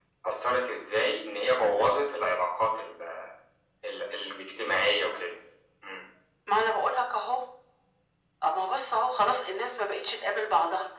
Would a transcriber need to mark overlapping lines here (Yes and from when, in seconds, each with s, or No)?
No